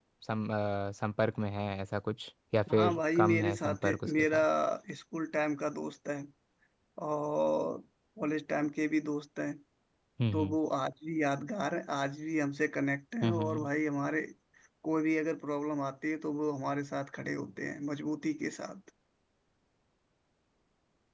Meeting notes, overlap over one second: present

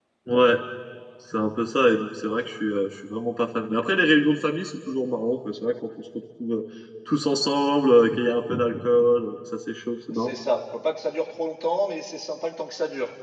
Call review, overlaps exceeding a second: none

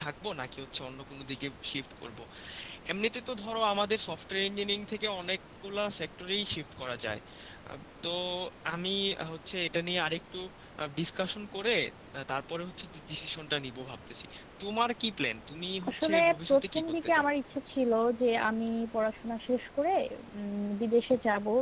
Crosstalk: present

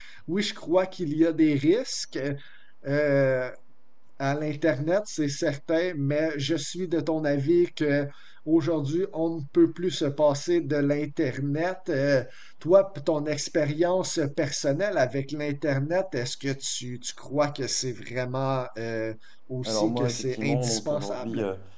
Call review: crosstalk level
present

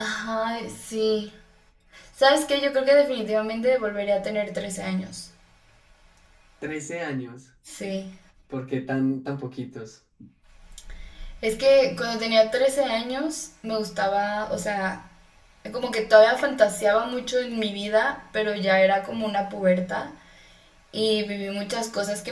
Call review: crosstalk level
none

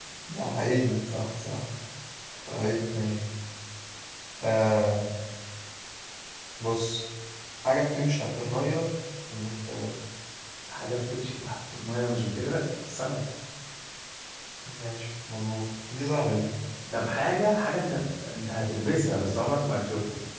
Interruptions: none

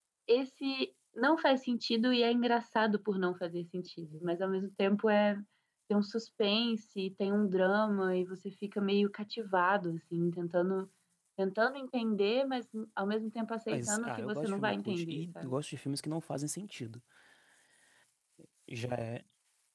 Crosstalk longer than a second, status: present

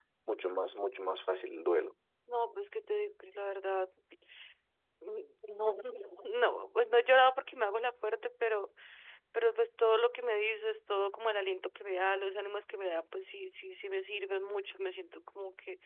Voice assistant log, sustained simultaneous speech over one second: none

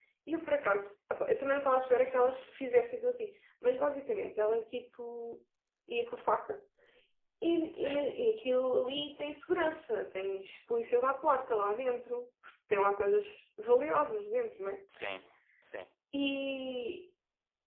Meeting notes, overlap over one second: none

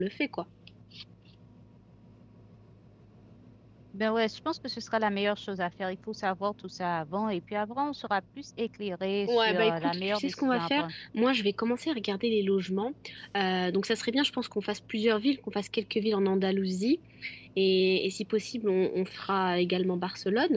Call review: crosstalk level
present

